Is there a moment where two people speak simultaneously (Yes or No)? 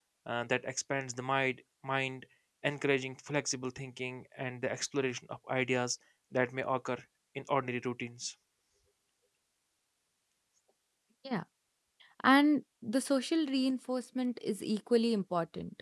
No